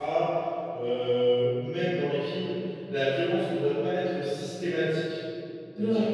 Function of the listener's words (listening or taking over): listening